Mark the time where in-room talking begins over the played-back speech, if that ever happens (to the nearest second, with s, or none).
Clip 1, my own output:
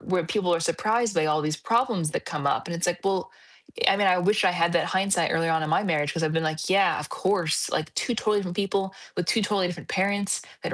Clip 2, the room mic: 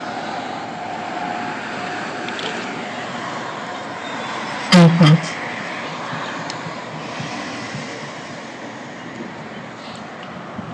5 s